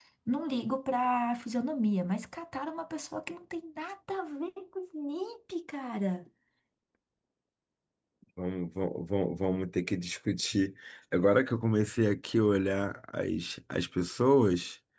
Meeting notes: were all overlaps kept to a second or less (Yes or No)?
Yes